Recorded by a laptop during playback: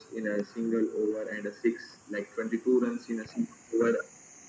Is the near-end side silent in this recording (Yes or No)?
Yes